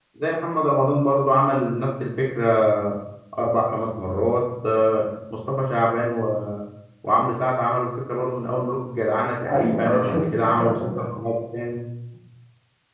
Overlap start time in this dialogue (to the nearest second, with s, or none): 9 s